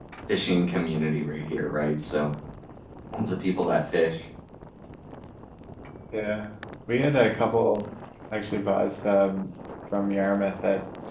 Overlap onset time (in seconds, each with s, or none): none